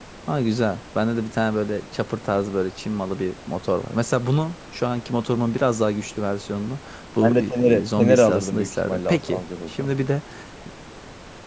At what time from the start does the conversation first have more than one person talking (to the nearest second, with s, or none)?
7 s